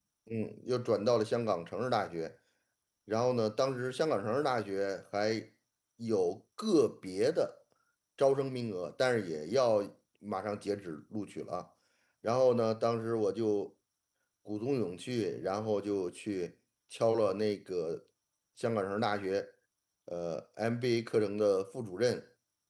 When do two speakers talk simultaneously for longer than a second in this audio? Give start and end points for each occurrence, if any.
none

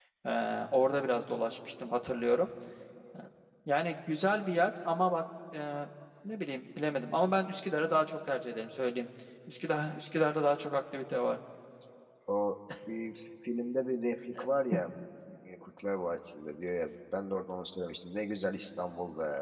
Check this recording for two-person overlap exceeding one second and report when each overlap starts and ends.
none

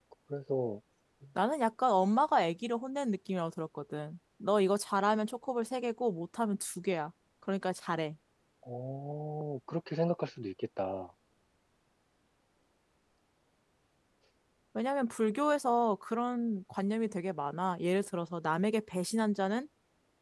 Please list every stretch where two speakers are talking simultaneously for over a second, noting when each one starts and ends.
none

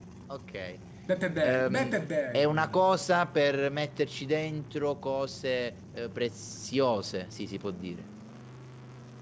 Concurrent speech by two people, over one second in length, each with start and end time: none

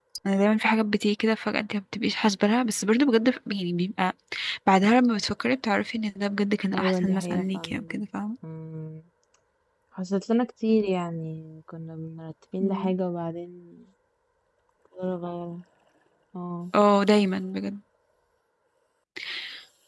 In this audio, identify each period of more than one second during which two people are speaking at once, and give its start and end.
6.7-8.0

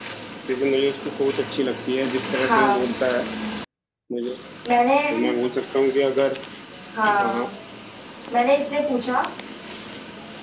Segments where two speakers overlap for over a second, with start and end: none

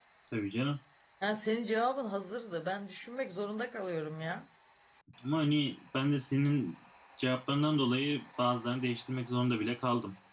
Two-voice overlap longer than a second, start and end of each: none

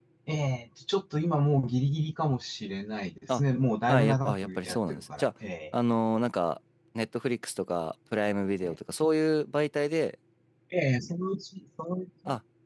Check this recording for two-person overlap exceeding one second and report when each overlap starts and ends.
3.9-5.3

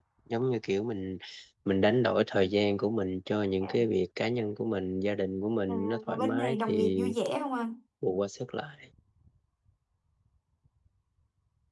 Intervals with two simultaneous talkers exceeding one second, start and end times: 5.7-7.0

